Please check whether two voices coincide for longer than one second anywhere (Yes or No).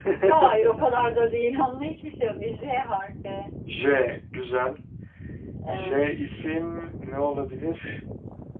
No